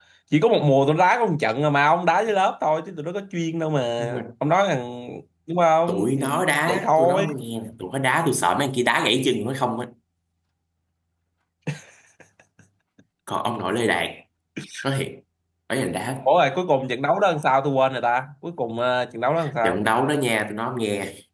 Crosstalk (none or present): present